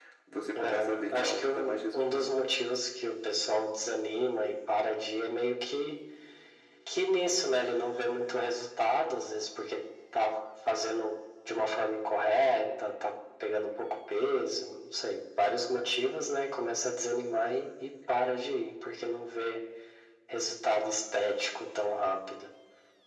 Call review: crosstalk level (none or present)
present